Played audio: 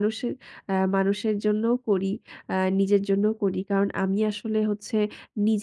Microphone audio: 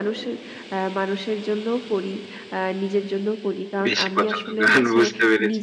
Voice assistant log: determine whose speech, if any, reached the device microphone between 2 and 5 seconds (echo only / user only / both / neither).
both